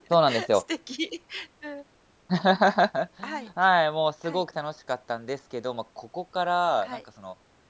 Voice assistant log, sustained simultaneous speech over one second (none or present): none